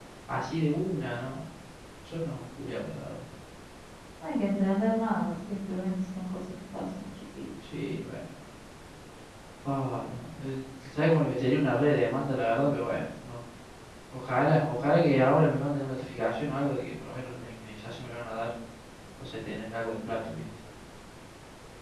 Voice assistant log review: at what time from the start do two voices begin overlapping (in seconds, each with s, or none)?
none